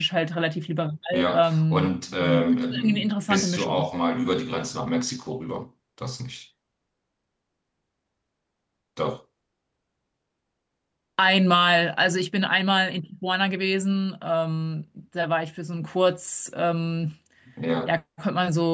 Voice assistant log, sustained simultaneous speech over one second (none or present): present